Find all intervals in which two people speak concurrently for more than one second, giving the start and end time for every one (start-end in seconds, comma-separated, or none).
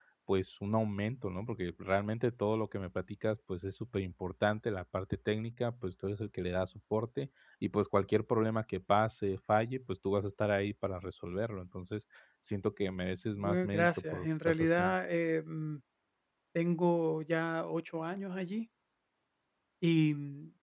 13.4-14.9